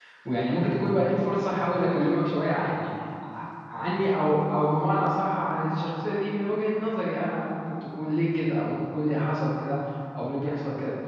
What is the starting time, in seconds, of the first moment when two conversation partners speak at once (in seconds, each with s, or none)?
none